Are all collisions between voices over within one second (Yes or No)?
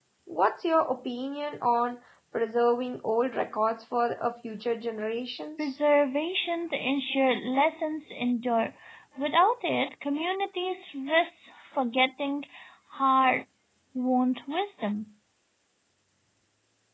Yes